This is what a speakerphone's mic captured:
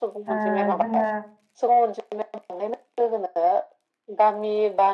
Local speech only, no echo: ओ जोङो

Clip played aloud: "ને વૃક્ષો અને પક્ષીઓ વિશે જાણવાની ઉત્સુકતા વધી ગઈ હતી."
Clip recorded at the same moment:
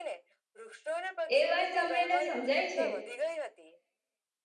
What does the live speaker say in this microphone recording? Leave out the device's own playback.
એ વાત સાંભળીને સમજાય છે

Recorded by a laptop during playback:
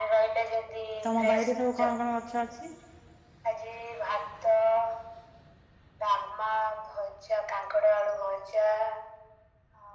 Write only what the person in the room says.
ତମ ବାଇରେ ସବୁ କଣ, କଣ ଗଛ ଅଛି?

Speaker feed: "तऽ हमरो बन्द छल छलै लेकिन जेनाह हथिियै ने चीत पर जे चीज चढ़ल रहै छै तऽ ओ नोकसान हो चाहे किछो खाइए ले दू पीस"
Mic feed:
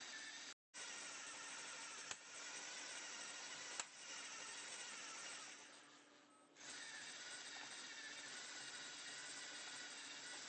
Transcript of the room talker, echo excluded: none

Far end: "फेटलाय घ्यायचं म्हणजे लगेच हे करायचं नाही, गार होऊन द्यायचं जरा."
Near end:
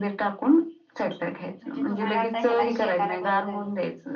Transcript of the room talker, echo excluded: म्हणजे तुम्हाला आता ह्याला शेताला बरं झालं.

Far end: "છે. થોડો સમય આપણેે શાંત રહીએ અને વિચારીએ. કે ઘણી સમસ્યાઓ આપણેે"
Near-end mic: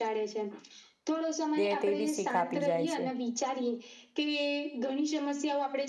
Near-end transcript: દે તેવી શીખ આપી જાય છે.

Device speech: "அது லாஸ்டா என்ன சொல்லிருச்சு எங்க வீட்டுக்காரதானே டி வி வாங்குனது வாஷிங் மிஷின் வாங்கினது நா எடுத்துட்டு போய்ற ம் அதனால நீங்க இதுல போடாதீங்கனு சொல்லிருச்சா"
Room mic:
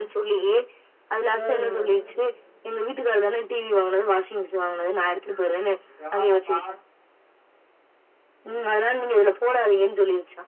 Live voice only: ம்.

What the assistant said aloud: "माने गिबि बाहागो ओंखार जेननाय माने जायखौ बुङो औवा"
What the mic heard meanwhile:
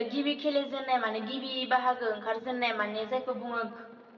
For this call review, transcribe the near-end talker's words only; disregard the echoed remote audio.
none

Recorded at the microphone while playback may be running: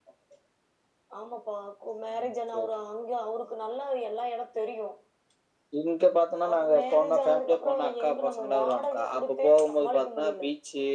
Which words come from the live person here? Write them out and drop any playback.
none

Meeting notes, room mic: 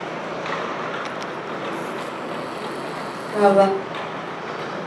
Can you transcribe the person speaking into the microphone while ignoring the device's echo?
ହଁ ବା।

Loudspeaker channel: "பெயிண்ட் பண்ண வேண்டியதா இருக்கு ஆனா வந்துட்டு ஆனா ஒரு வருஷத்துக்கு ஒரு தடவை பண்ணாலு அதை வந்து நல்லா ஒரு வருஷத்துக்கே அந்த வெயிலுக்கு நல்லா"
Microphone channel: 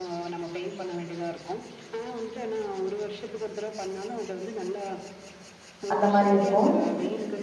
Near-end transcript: அந்த மாரி இருக்கும்

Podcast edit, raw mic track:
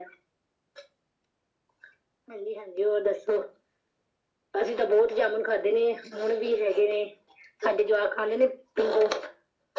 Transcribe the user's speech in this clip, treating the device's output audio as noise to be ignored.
none

